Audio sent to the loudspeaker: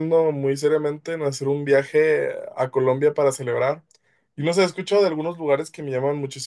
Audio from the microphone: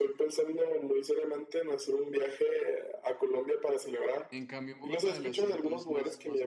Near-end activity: present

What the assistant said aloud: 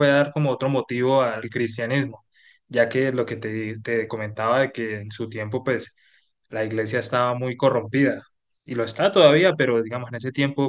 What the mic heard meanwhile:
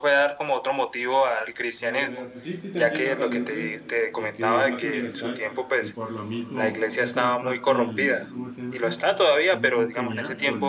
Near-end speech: present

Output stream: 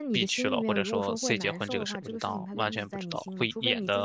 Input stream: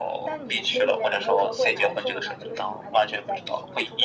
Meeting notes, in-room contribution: none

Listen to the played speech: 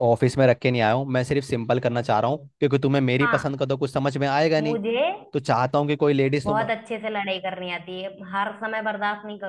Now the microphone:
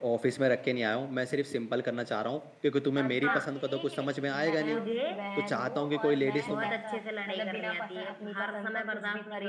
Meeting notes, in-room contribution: present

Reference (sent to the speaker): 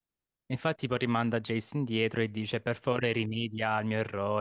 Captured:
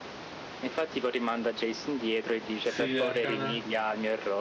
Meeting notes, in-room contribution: present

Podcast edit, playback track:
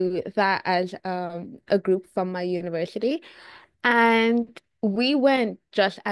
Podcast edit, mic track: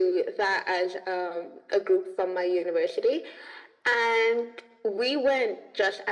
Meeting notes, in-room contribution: none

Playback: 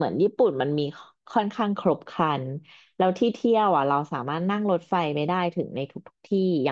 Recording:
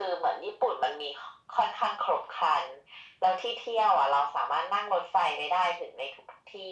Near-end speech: none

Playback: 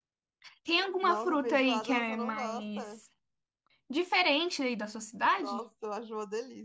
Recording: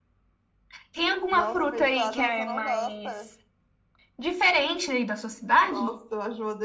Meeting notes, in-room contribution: none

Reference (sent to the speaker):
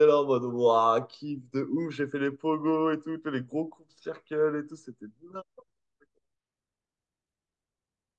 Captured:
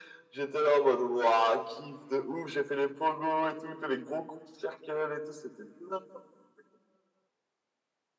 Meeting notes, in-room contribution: none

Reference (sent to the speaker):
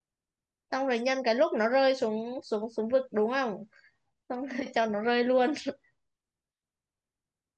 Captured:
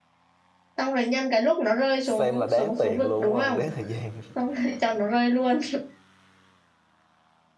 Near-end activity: present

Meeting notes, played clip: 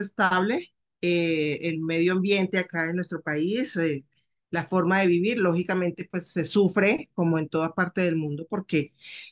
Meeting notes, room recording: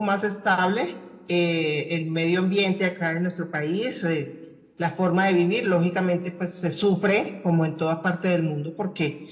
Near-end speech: none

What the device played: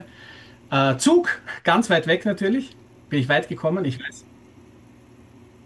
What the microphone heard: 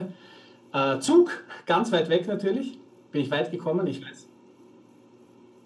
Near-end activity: none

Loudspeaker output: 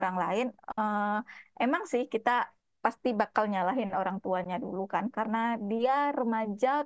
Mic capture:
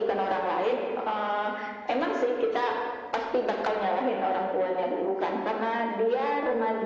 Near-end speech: none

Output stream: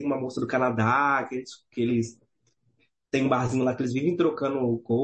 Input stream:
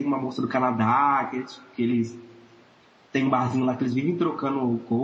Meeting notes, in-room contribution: none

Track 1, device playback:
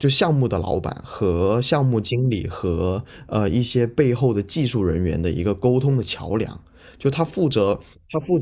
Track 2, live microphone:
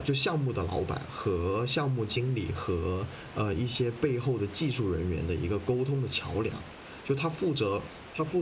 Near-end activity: none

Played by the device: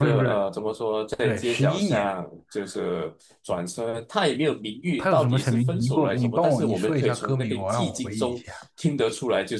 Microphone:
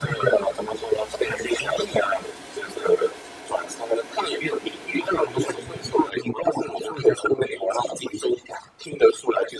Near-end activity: none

